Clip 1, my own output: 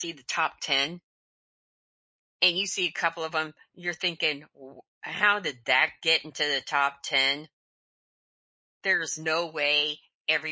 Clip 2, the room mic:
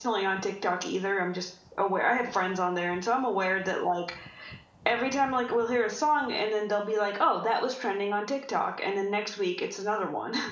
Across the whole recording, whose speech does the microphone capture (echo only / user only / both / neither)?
user only